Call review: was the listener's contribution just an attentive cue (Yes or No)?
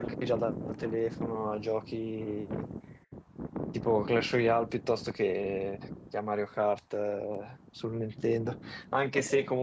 Yes